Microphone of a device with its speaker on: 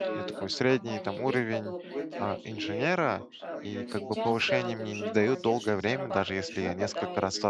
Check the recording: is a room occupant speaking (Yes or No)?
Yes